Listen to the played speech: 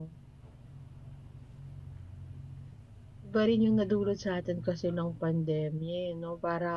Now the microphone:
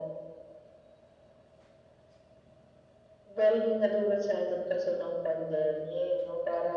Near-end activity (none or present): none